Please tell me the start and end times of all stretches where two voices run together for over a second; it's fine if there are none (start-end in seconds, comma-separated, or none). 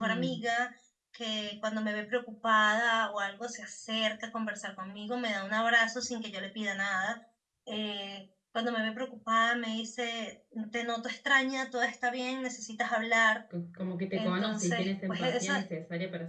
14.1-15.5